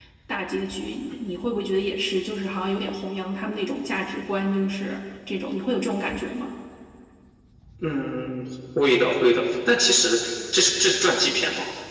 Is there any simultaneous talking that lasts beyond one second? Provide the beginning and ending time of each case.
none

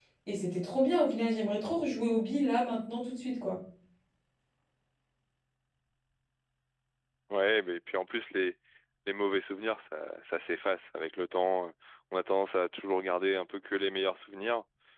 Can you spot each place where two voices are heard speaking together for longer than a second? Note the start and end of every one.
none

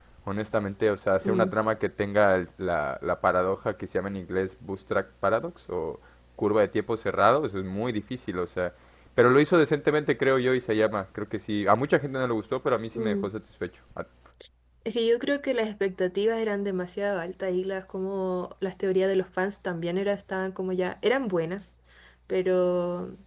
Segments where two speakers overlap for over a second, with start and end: none

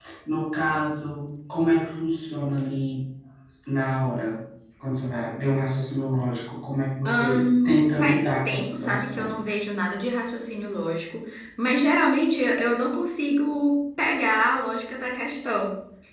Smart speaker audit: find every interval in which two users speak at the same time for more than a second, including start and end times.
7.0-9.4

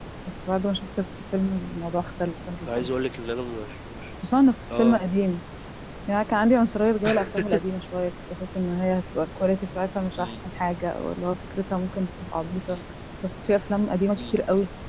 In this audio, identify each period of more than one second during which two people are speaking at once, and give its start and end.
none

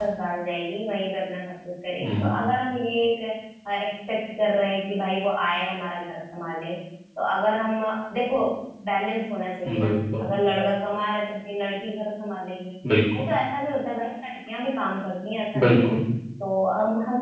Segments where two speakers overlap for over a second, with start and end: none

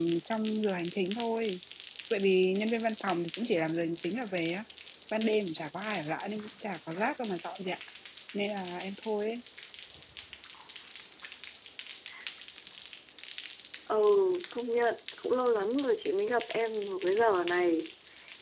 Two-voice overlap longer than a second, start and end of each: none

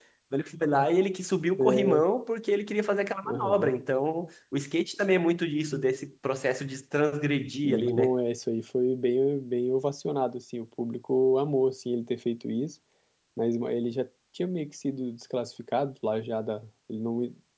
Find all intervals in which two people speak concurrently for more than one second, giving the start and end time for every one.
none

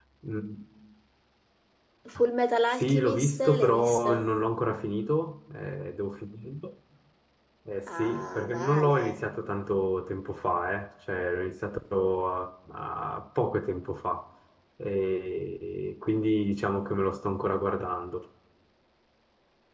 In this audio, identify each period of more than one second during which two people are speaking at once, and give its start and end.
2.8-4.2, 7.9-9.2

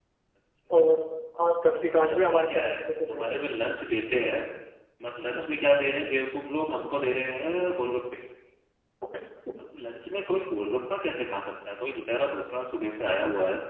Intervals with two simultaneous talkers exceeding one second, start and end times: 1.8-3.5

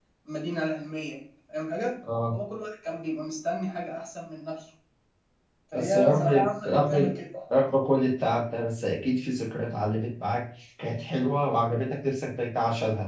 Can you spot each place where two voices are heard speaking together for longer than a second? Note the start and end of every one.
5.7-7.1

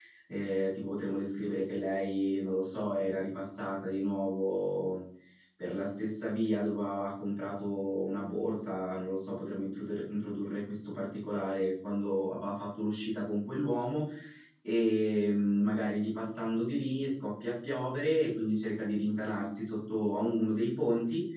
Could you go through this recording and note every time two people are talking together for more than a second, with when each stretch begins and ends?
none

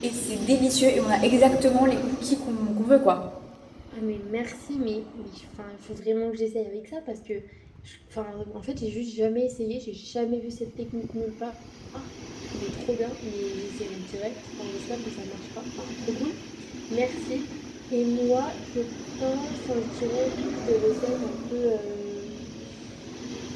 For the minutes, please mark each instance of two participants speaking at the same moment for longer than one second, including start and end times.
none

